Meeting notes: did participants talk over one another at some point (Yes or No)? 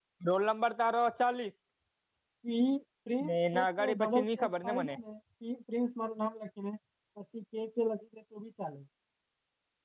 Yes